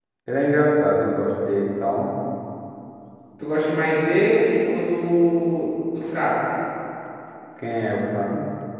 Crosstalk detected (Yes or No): No